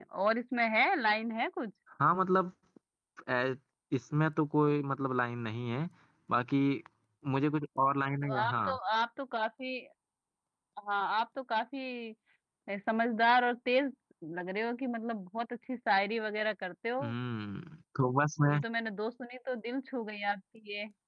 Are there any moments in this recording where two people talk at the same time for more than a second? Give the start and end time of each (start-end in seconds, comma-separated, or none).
none